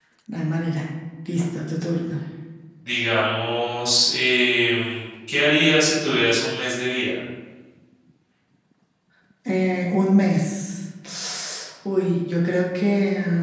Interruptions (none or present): none